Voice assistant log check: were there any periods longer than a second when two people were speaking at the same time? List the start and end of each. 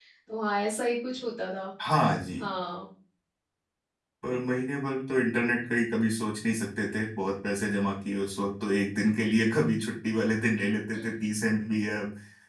none

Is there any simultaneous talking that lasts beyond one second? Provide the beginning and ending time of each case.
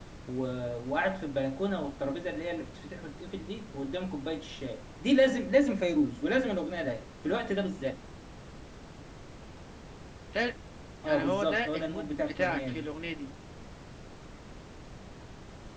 11.0-12.9

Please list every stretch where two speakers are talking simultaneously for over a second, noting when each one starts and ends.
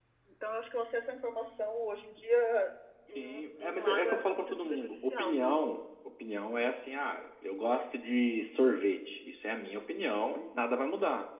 3.1-5.6

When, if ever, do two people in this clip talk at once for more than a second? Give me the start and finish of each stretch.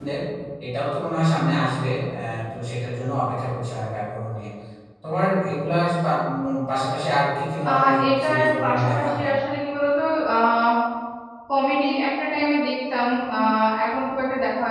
7.7-9.3

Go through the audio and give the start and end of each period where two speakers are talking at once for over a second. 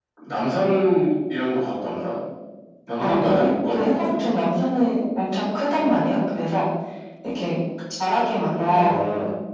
3.0-4.2

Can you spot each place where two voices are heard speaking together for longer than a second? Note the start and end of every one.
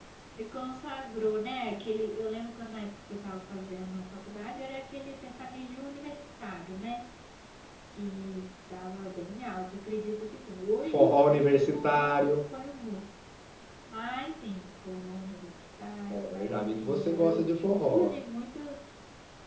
10.8-12.4, 16.1-18.2

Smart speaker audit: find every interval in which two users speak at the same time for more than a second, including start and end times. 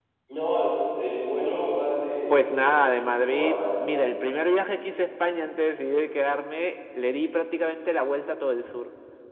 2.3-3.9

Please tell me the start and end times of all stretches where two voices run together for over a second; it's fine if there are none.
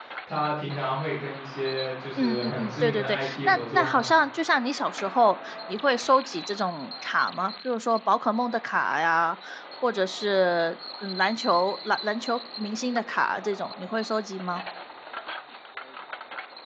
2.2-4.1

